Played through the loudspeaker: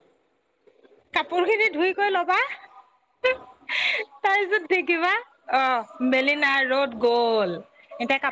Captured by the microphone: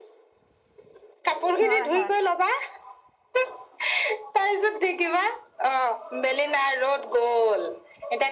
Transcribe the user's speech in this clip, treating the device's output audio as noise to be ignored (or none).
হয় হয়